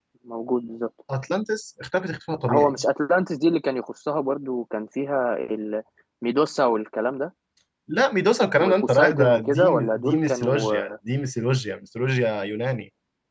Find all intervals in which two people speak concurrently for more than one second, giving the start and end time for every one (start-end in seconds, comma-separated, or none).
8.6-10.7